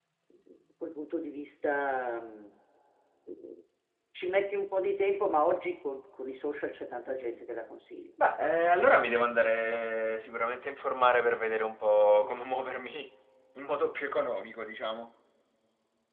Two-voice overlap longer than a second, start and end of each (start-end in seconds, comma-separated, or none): none